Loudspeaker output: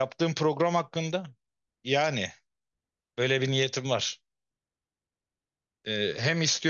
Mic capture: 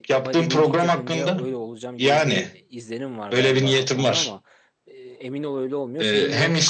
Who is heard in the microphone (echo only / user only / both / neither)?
both